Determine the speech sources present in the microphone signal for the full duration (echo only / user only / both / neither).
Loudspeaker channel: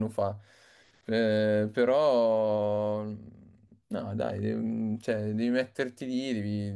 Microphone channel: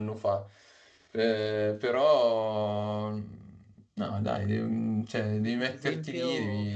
both